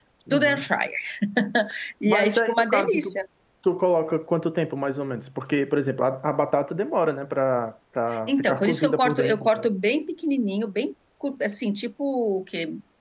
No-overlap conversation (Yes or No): No